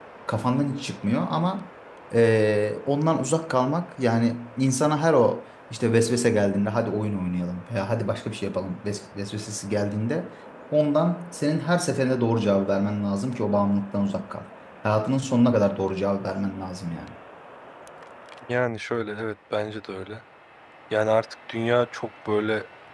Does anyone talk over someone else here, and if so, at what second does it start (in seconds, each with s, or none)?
none